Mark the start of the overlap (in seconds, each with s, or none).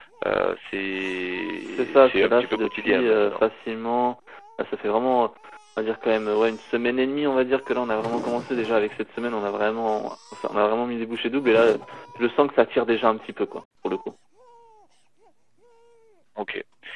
1.6 s